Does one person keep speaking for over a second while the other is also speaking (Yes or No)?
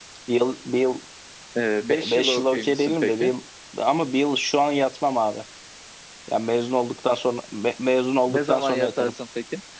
Yes